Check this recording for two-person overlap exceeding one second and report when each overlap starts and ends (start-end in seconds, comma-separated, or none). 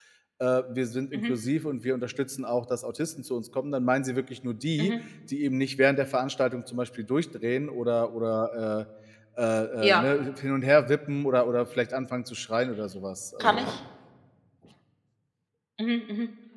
none